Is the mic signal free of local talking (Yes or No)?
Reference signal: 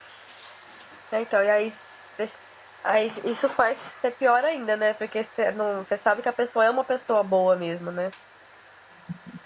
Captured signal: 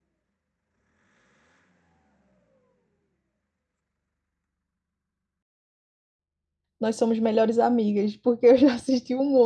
No